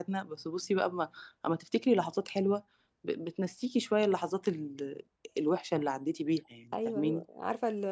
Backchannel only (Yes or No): No